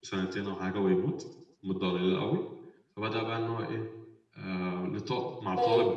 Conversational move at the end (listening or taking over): listening